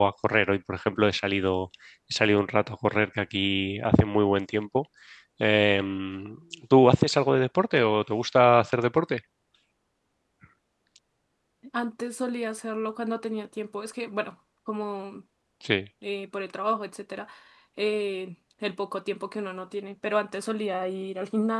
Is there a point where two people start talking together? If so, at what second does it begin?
none

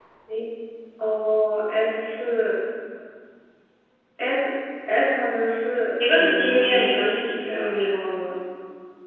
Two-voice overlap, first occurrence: 6.0 s

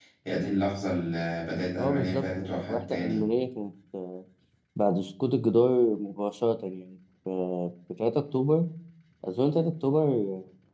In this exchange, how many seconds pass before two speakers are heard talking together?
1.8 s

